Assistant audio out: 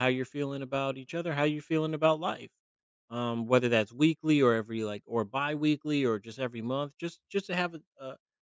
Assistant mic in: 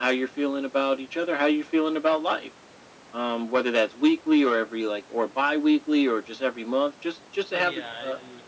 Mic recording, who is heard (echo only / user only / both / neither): both